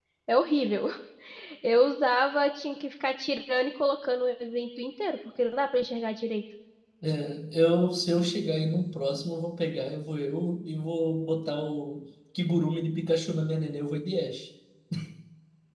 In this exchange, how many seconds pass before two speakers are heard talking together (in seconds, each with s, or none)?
none